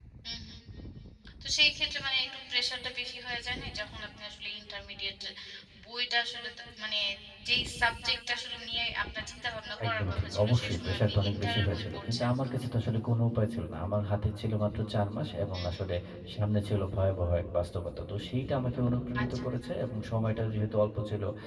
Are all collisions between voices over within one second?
No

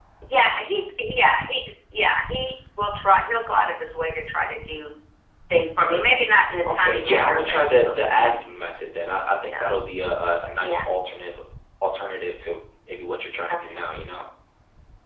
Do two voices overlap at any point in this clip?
Yes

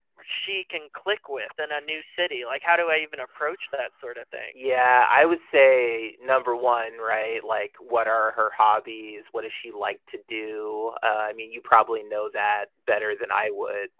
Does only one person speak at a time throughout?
Yes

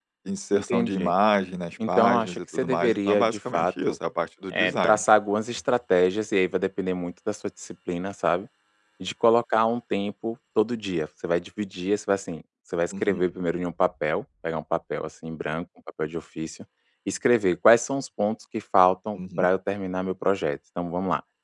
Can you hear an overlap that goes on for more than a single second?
Yes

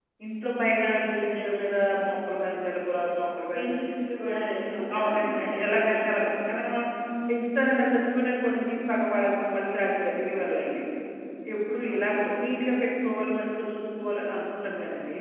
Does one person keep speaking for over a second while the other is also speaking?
Yes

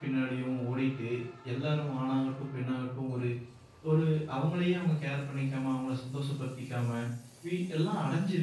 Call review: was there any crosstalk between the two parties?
No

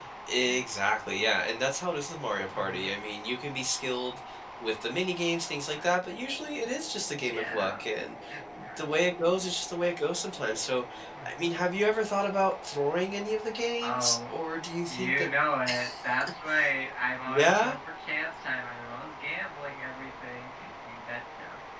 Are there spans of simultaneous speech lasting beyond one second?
No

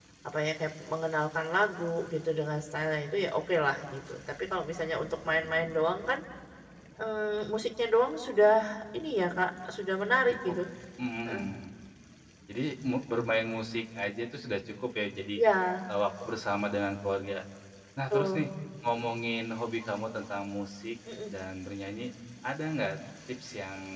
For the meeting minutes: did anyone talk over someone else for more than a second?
No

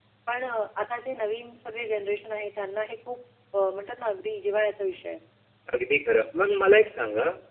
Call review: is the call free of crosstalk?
Yes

